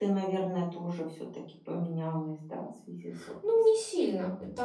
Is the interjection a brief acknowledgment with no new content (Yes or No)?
No